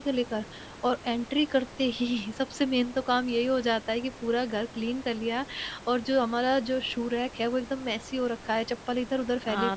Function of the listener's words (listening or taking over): taking over